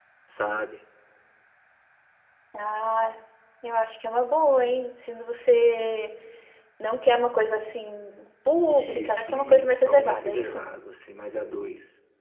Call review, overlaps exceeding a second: present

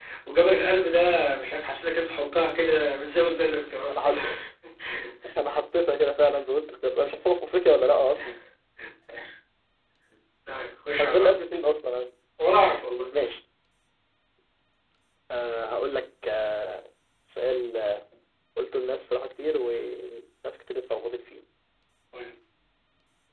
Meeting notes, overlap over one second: none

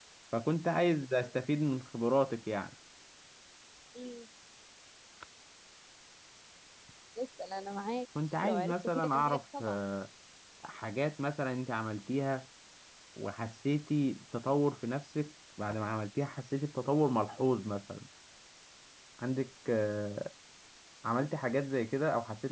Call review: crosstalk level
present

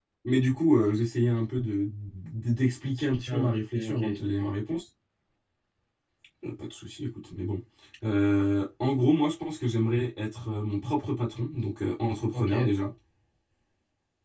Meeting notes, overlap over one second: present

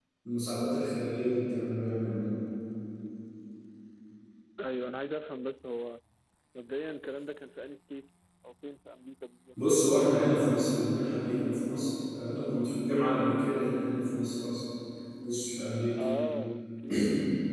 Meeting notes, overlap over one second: none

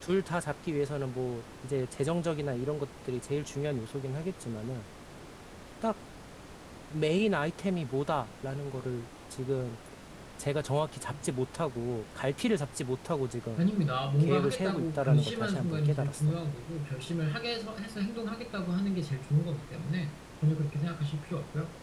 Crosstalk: present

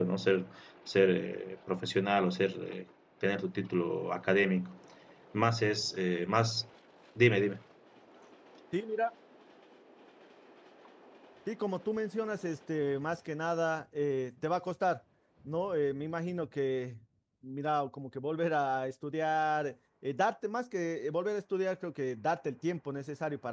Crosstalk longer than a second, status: none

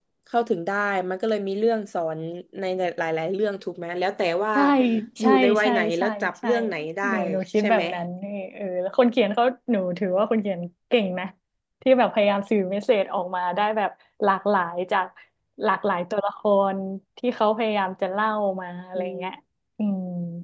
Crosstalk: present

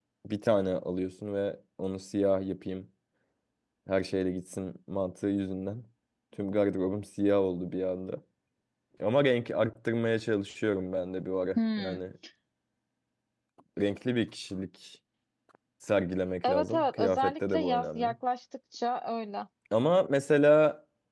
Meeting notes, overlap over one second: present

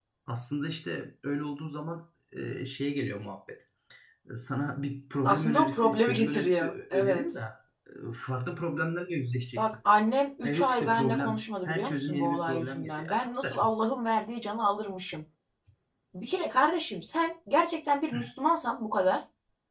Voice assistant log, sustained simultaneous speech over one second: present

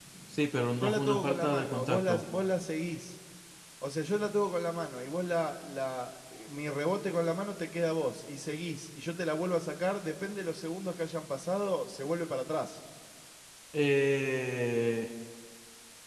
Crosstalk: present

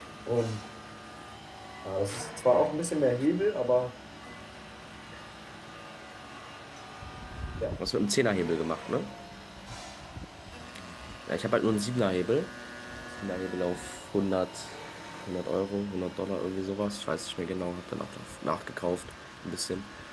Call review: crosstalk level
none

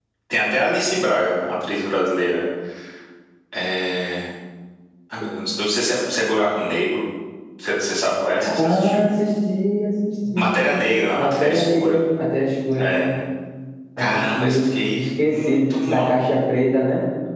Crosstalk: present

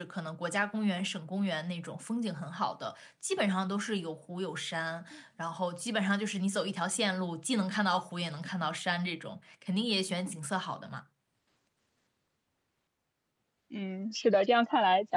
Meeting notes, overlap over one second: none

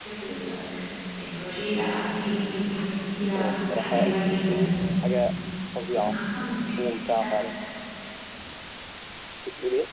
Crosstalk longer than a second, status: present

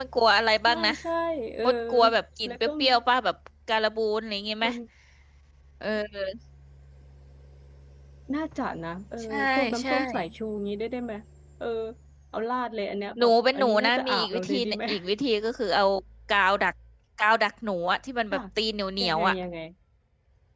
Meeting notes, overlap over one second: present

